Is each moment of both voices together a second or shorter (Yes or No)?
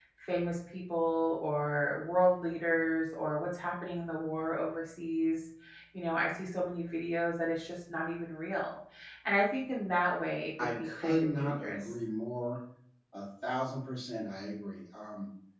No